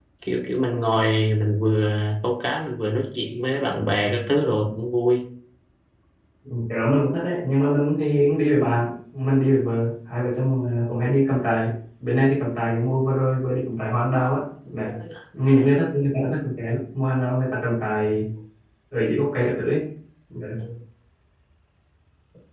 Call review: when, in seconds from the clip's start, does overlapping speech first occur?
none

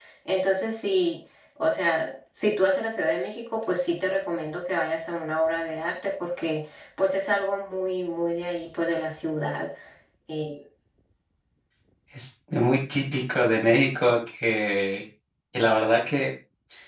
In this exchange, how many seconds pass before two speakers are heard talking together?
none

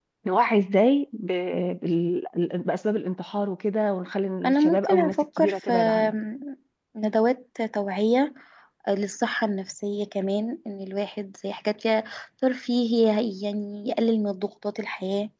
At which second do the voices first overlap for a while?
4.4 s

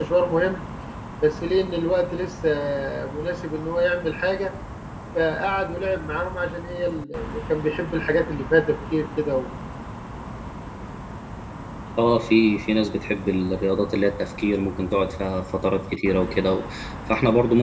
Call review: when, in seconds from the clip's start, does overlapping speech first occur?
none

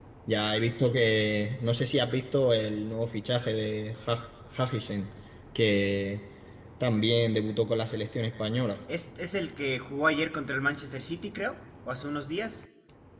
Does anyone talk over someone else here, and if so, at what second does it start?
none

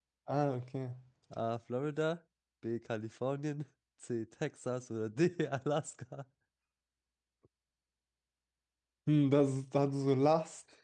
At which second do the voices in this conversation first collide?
none

